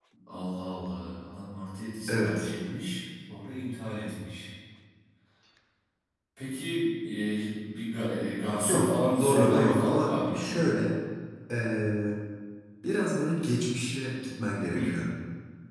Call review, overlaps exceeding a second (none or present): present